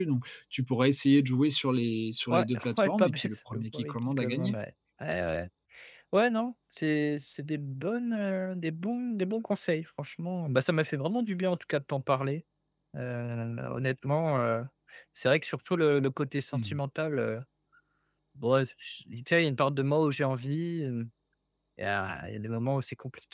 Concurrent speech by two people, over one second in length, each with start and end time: 2.3-4.5

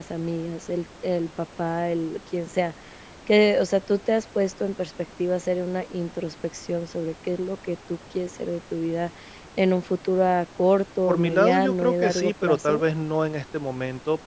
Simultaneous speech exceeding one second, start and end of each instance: 11.1-12.8

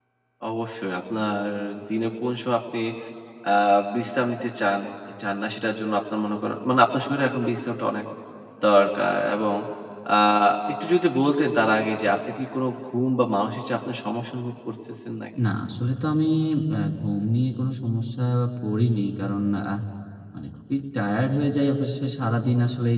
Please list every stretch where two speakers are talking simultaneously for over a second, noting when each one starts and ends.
none

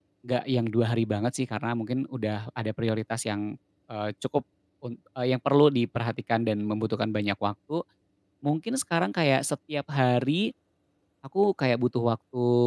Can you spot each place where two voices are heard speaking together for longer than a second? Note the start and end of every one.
none

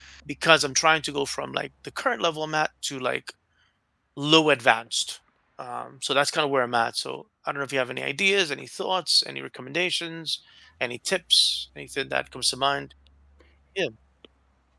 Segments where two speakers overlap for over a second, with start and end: none

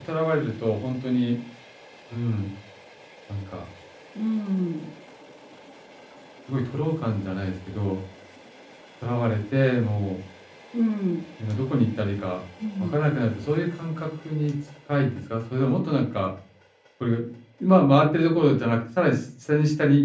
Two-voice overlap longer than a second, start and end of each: none

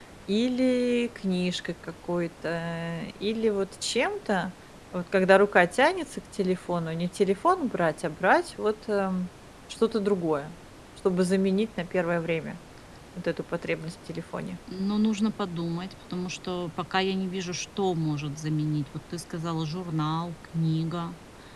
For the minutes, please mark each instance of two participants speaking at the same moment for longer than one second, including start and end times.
none

